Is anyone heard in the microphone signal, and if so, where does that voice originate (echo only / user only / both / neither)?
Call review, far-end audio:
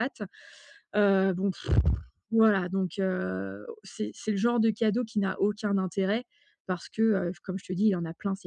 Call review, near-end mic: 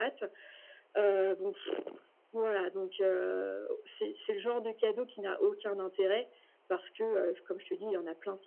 echo only